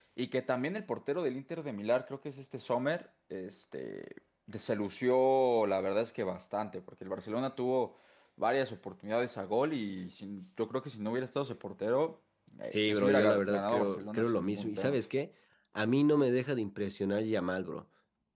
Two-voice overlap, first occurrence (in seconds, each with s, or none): 12.7 s